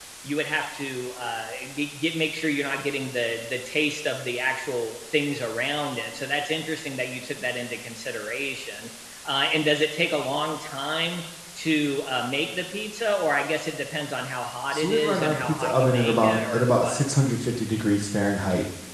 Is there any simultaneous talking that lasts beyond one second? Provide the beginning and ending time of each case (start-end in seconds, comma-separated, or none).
14.7-17.1